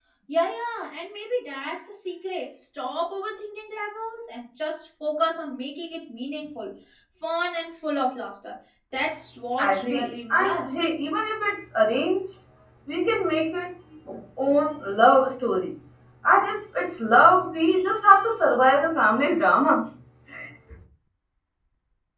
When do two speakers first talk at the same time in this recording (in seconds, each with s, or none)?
9.6 s